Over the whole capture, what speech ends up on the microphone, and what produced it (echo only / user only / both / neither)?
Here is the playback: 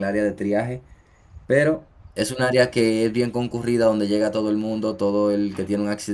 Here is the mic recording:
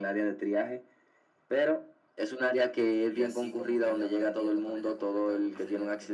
both